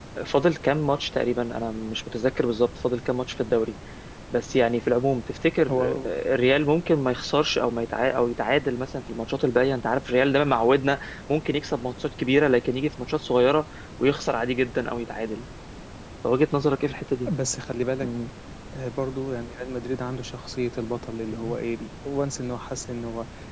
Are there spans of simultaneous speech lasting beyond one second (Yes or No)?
No